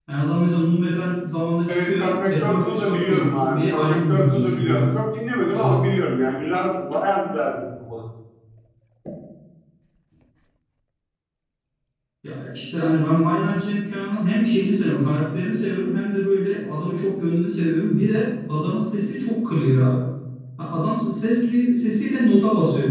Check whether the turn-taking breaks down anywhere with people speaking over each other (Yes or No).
Yes